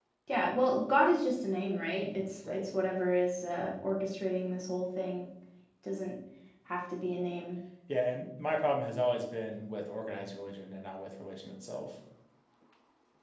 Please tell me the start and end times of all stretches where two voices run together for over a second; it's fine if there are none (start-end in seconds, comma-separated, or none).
none